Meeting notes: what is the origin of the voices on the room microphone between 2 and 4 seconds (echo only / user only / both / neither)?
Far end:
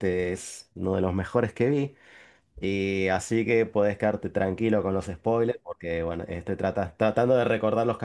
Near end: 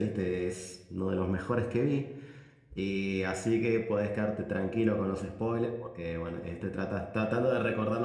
echo only